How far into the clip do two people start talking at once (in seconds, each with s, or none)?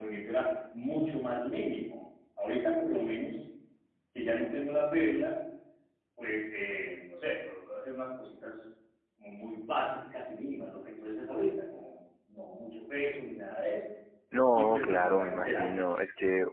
14.5 s